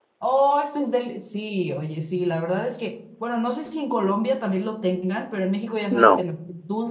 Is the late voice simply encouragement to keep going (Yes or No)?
Yes